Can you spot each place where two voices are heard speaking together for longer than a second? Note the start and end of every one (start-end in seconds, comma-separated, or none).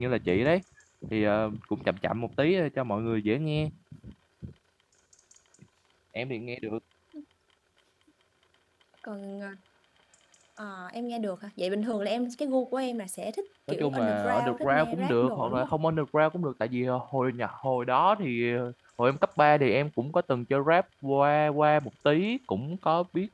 13.7-15.7